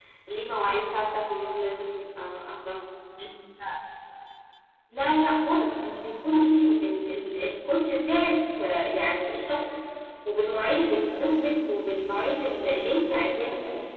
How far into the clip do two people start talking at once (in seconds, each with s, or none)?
none